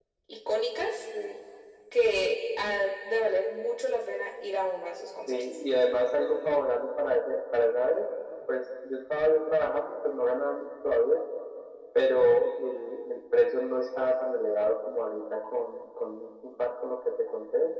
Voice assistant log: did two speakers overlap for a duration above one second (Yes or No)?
No